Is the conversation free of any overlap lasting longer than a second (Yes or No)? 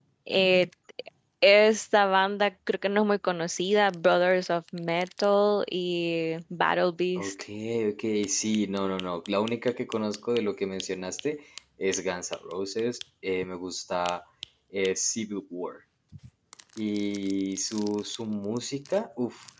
Yes